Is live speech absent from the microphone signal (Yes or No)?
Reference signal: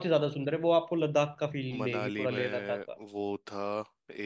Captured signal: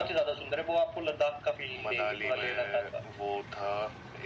Yes